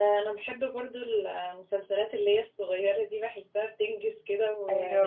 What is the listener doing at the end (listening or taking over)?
taking over